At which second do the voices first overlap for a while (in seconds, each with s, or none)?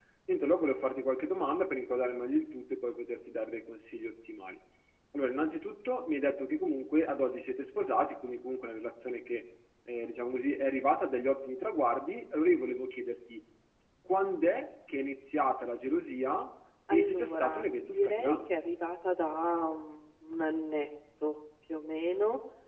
16.9 s